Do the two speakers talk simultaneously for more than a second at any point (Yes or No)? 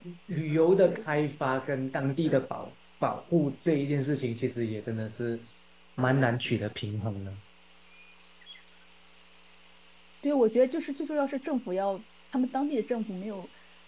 No